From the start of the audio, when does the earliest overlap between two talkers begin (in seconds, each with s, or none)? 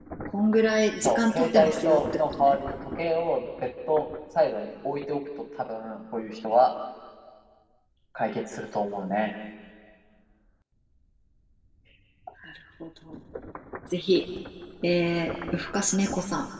1.0 s